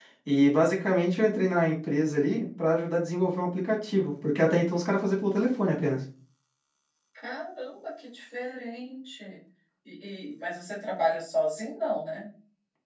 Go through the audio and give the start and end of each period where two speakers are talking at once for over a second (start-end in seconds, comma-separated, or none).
none